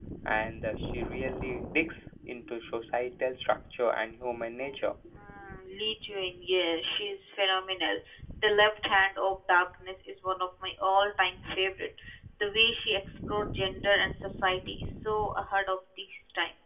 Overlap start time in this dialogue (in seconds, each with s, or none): none